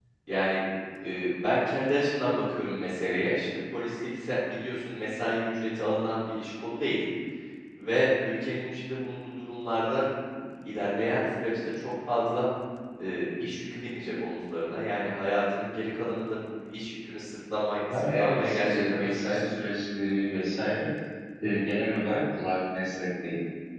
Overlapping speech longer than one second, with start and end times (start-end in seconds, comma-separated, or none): 17.9-19.5